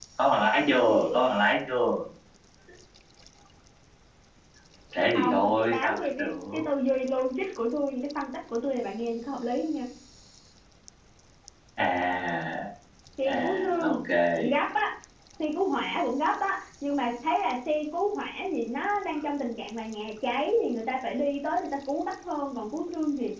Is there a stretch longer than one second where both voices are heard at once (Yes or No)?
Yes